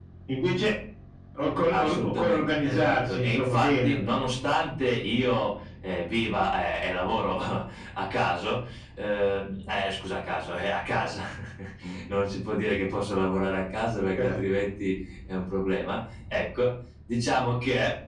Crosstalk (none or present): present